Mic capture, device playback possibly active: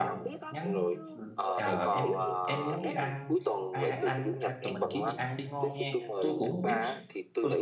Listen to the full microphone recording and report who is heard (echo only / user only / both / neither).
both